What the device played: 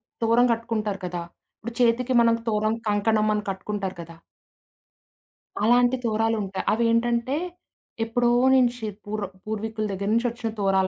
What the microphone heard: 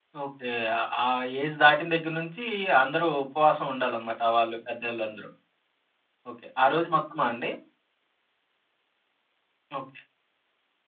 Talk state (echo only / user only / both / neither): user only